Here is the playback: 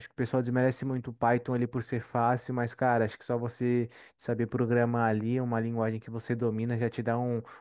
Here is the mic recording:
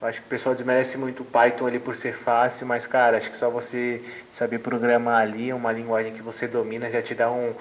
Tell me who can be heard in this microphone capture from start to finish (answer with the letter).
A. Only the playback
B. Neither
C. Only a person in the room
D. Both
A